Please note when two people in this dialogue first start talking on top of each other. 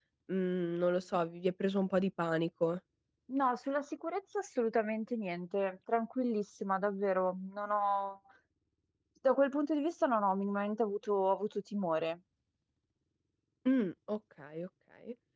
none

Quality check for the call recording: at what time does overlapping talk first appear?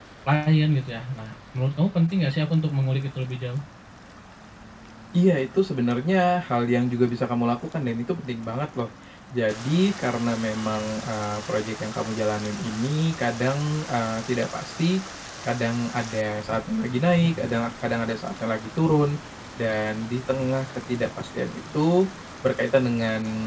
none

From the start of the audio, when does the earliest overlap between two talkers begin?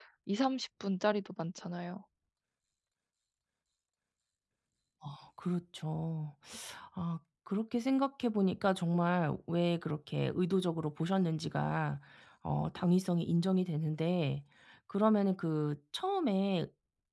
none

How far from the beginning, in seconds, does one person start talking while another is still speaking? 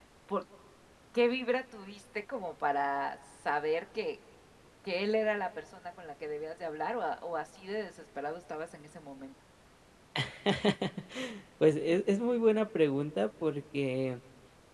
none

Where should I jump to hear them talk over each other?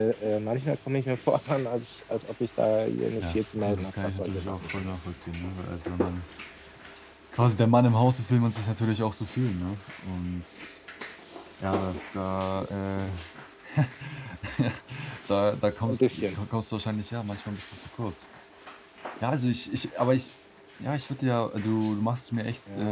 3 s

